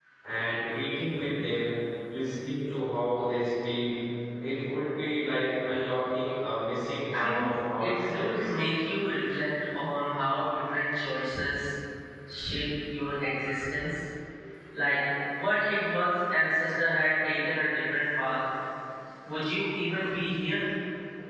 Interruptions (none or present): present